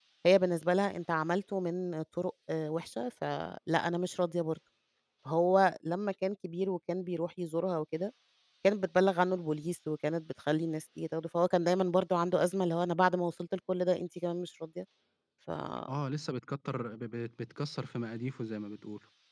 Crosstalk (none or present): none